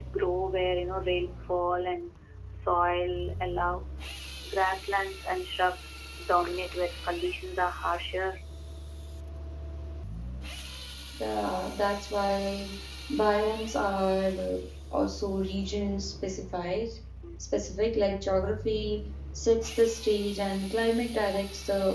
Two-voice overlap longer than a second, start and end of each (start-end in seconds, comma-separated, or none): none